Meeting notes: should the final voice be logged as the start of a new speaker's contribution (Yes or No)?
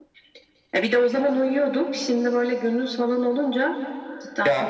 Yes